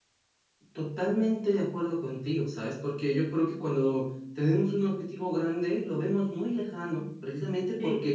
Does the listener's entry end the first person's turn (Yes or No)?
No